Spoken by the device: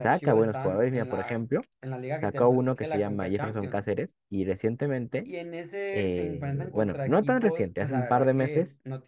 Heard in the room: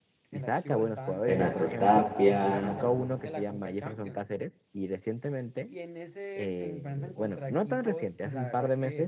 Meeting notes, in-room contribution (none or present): present